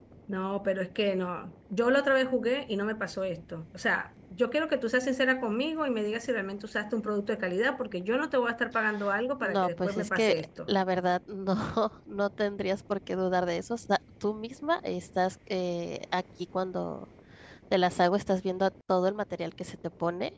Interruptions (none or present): present